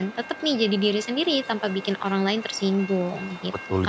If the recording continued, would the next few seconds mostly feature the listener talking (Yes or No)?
Yes